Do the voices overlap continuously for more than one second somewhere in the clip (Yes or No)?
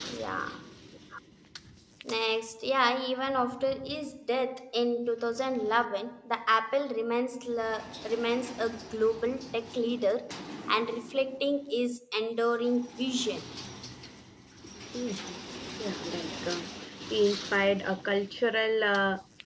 No